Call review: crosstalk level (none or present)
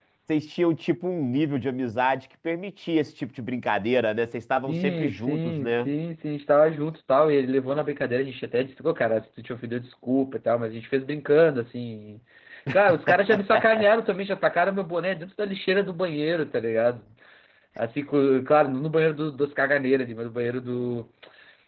present